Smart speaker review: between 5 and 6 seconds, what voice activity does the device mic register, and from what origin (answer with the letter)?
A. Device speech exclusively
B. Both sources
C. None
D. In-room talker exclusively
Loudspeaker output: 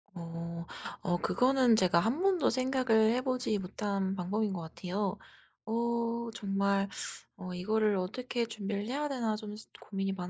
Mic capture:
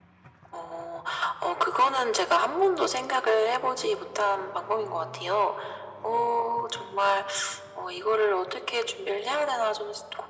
A